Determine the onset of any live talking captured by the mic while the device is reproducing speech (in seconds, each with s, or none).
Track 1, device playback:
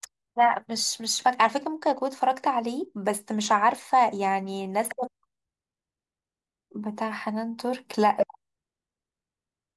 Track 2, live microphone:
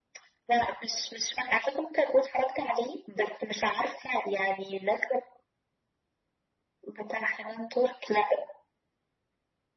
none